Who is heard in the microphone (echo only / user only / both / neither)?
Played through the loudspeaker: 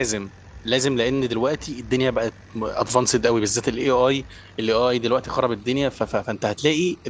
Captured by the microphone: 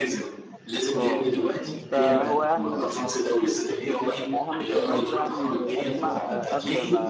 both